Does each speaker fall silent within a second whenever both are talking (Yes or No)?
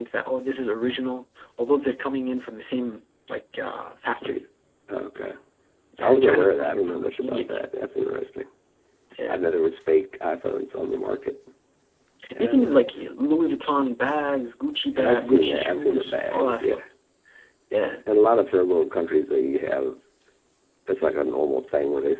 No